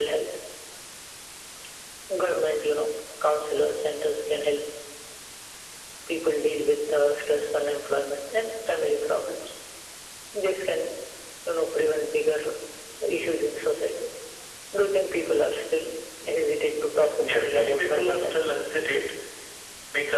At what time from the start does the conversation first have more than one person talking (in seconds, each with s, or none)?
17.2 s